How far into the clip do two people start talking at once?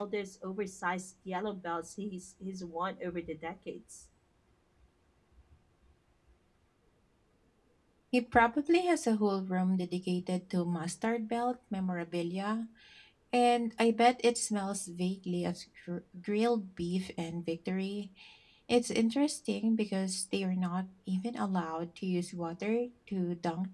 none

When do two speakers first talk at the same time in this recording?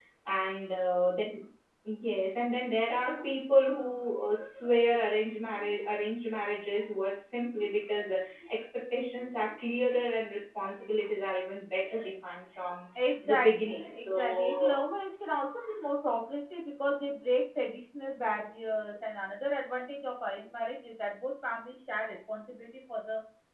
13.2 s

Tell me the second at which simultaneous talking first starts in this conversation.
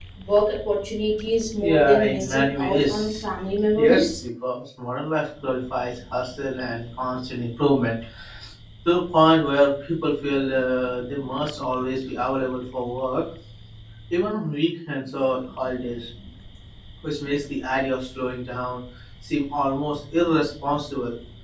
1.6 s

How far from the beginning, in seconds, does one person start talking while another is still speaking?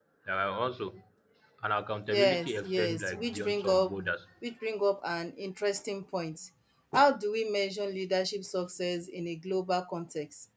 2.1 s

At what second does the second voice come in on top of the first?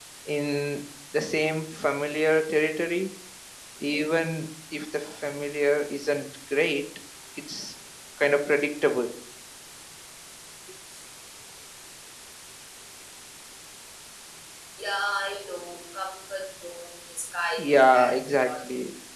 17.6 s

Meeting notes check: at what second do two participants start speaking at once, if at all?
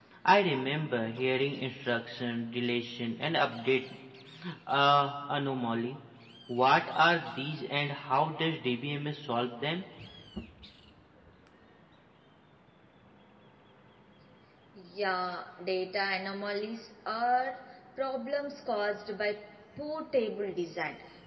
none

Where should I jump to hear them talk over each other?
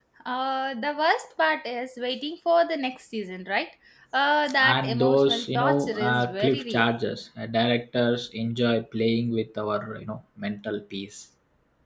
4.6 s

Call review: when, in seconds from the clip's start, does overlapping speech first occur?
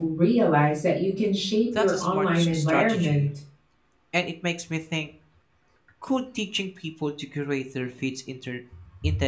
1.7 s

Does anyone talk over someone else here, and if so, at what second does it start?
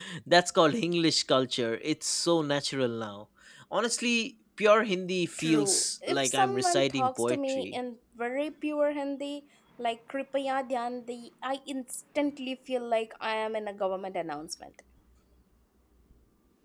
5.4 s

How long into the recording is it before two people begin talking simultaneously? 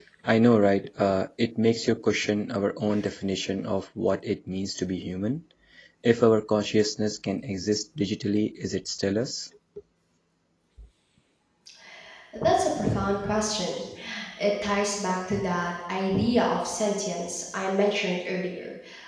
none

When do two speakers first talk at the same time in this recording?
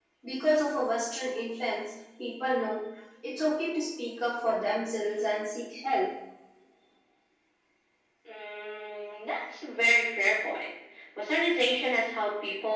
none

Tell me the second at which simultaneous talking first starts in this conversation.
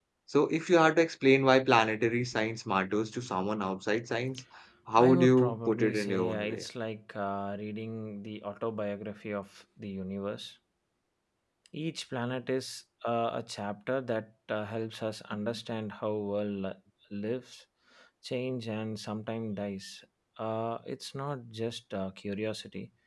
5.0 s

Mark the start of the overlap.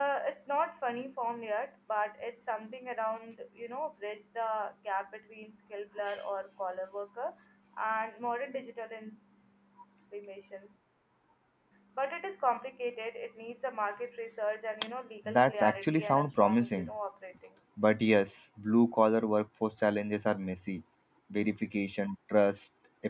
15.3 s

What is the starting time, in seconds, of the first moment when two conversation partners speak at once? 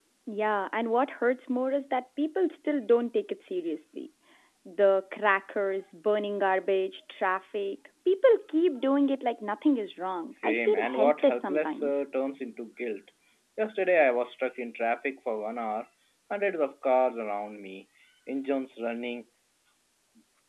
10.4 s

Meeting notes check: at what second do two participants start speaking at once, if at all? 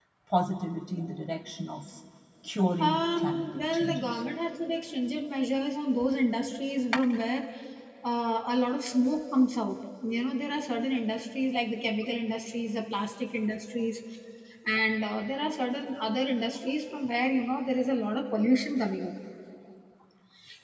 2.8 s

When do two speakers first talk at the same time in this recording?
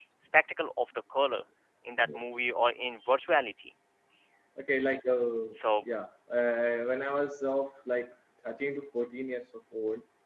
none

